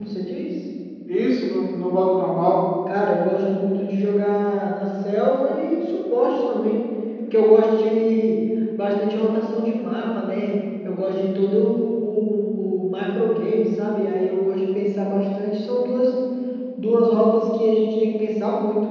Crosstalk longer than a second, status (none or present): none